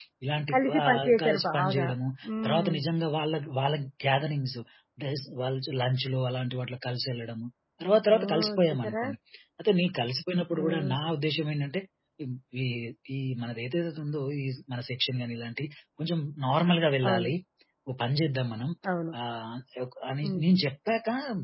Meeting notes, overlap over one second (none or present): present